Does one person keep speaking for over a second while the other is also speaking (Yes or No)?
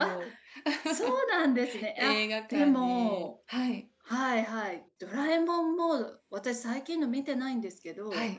Yes